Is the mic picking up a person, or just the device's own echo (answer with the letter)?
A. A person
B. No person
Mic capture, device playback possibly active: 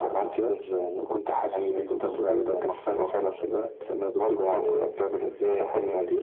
B